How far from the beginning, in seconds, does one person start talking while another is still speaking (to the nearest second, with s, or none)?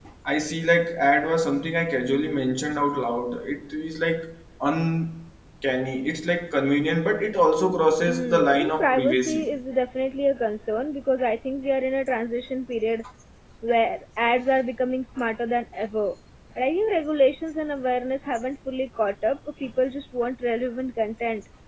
8 s